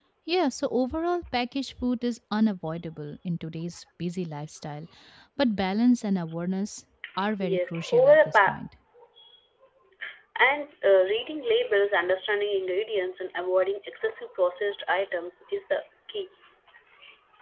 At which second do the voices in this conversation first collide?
7 s

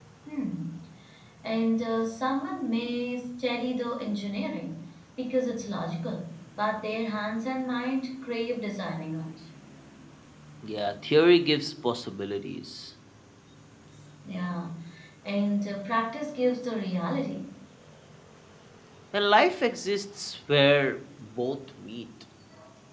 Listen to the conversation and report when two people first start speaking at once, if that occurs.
none

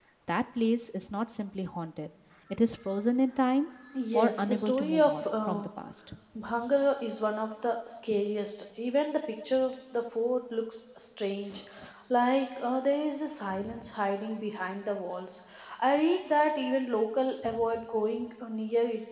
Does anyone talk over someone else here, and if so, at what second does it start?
4 s

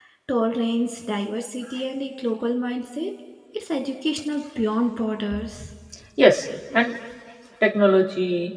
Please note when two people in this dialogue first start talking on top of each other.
none

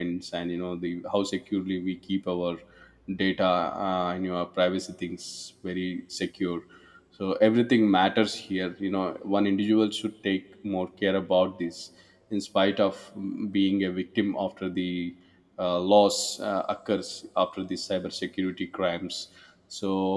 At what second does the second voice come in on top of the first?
none

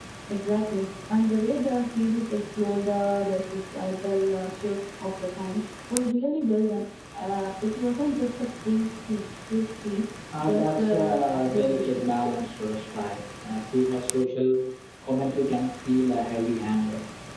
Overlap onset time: 10 s

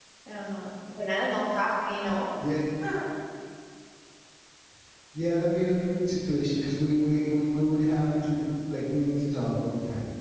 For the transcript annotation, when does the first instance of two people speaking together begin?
none

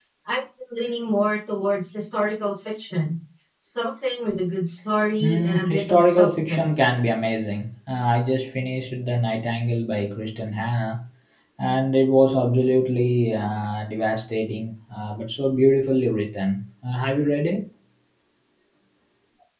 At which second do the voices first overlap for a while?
5 s

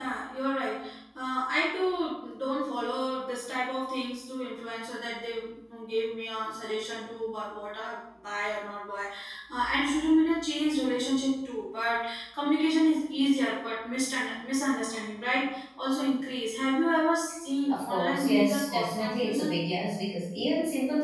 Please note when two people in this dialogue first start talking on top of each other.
18 s

